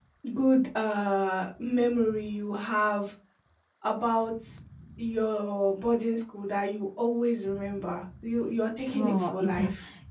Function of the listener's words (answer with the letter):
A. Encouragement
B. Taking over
B